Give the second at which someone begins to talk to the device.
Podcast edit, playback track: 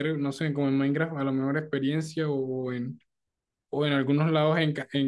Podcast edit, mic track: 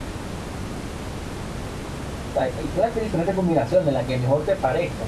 2.3 s

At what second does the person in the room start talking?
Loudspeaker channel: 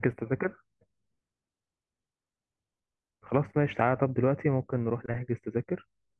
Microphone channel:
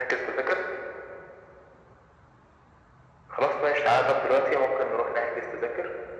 none

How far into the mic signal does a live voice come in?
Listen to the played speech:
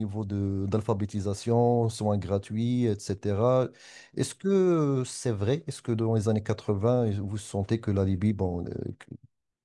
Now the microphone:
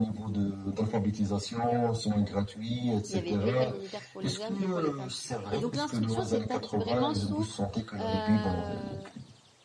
3.1 s

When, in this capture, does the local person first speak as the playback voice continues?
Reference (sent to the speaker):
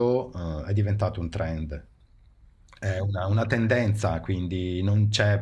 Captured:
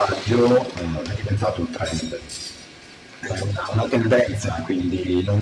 none

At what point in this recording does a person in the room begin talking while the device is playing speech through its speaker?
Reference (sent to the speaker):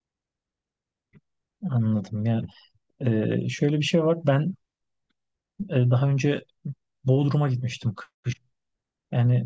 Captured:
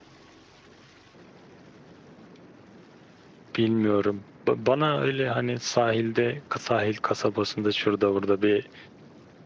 3.6 s

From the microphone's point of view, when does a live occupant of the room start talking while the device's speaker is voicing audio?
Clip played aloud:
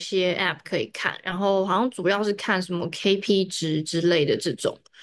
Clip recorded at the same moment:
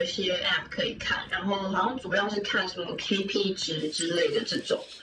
none

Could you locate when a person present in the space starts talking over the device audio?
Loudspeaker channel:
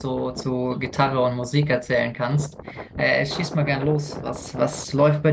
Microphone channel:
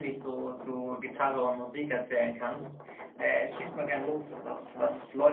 none

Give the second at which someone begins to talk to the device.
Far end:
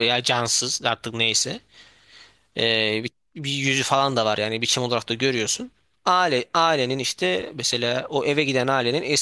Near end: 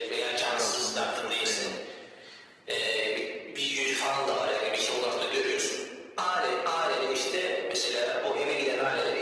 0.5 s

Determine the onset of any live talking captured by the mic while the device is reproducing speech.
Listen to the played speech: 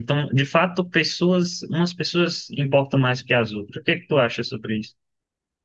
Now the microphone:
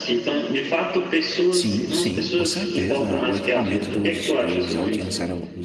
1.5 s

